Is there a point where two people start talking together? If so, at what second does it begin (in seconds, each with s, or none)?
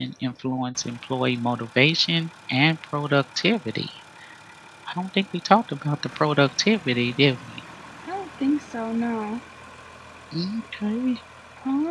none